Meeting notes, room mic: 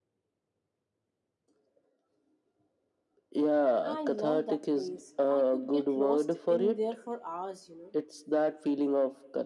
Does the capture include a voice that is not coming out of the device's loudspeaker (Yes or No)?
Yes